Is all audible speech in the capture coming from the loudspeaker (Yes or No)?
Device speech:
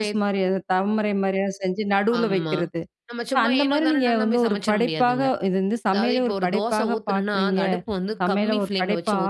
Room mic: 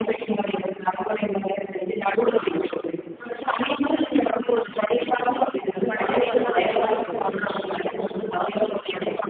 No